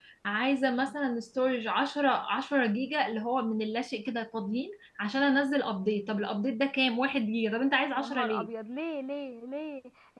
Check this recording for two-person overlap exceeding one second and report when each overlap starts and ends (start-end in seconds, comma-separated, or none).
none